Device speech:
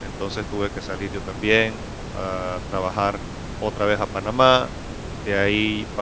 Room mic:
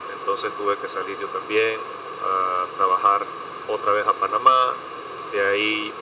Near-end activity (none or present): none